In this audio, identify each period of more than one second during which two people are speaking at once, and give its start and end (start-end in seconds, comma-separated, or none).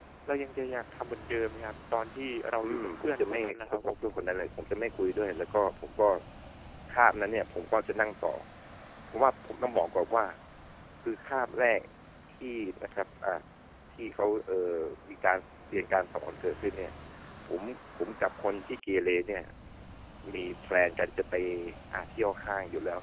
2.6-3.9